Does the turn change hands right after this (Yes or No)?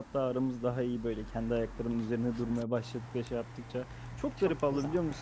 No